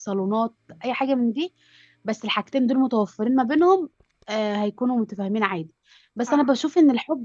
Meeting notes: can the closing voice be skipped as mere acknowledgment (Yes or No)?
Yes